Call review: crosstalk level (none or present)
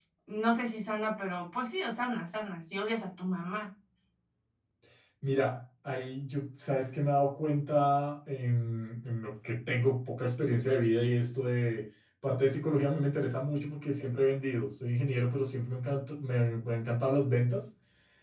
none